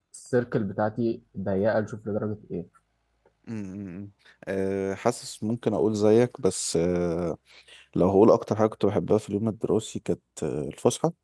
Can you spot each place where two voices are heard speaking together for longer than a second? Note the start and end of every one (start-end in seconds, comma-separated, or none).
none